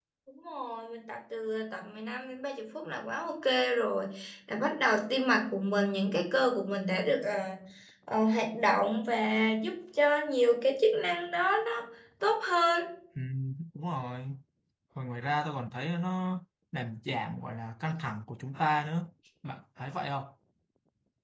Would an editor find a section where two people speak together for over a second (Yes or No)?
No